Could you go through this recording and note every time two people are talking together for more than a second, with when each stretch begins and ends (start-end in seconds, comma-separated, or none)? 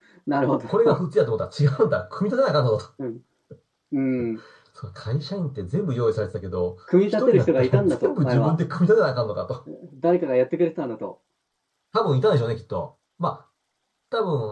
7.1-8.5